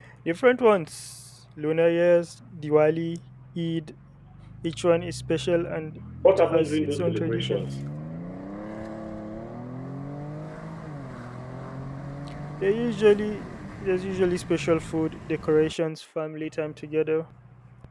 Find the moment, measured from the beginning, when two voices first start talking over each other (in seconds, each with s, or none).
6.2 s